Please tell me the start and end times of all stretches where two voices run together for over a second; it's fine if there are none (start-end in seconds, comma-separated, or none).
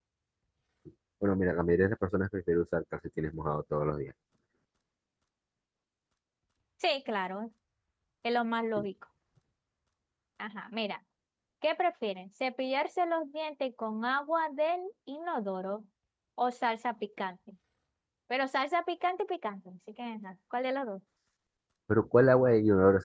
none